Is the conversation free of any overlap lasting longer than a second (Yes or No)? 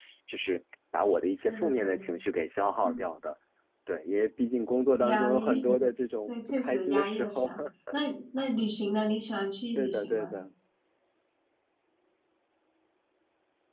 No